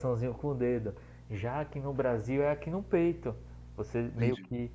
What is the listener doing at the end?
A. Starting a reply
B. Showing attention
B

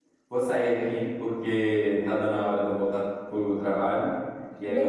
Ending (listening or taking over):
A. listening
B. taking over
A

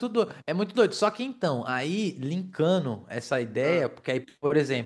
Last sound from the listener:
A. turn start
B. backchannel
B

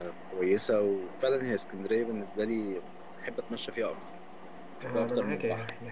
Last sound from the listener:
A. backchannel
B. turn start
B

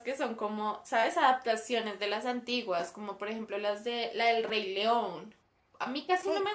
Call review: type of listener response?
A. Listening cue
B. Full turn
A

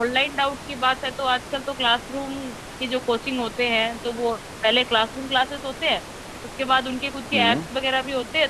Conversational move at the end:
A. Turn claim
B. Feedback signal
B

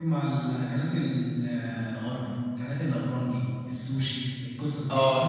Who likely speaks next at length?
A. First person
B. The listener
B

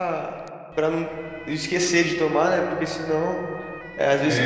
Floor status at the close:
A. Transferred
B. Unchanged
B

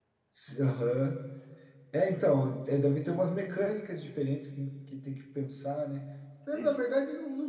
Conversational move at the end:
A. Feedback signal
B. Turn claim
A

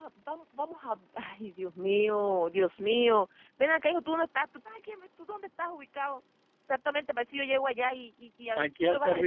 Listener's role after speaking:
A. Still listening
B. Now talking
B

